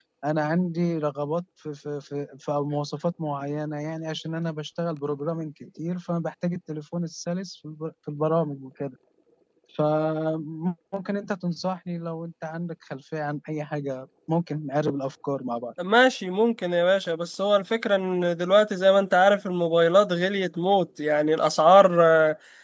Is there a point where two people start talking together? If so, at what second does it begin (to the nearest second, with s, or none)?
none